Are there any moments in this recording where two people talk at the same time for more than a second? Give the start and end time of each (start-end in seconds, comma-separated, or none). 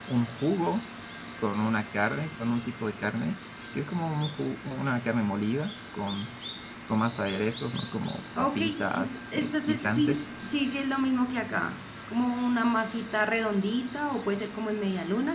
8.4-10.2